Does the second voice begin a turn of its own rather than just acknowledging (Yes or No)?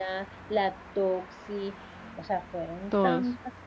No